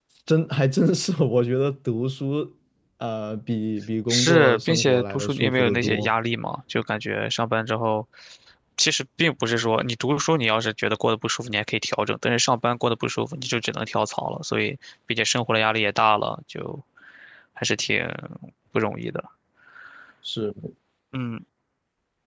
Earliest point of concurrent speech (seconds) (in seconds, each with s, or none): 4.1 s